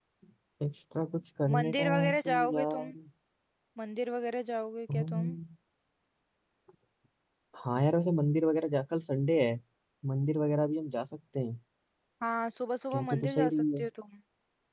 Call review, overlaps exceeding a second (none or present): present